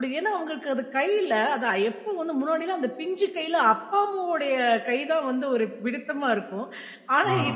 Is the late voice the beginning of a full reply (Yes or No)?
No